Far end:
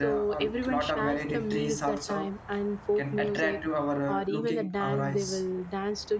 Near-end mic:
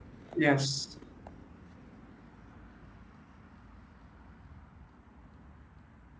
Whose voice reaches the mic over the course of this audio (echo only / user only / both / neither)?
user only